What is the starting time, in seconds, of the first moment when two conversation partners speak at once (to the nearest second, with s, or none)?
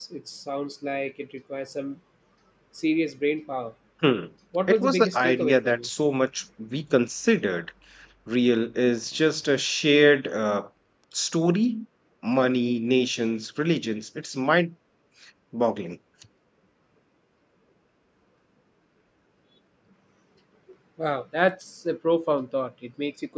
5 s